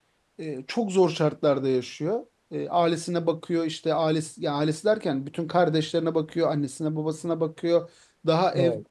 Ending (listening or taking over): listening